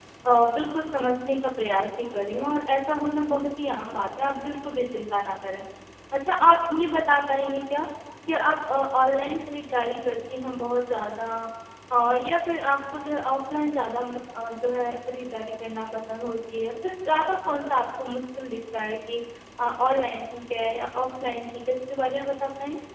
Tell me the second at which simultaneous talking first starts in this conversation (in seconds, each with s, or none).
none